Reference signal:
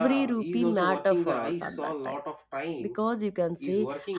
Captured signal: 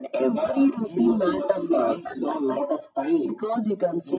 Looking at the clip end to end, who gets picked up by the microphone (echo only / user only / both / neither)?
echo only